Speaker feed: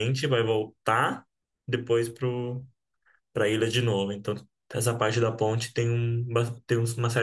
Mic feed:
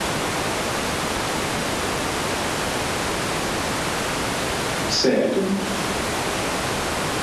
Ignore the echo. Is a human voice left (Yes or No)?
Yes